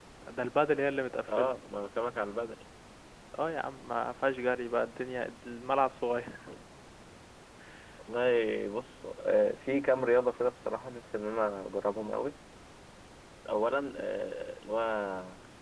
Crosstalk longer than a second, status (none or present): none